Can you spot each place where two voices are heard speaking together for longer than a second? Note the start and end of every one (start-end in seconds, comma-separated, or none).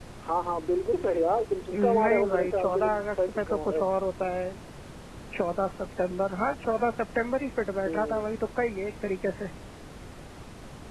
1.7-3.9